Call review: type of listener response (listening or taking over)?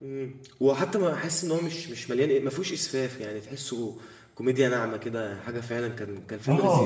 taking over